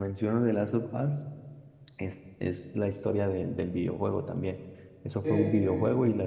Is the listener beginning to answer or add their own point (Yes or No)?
No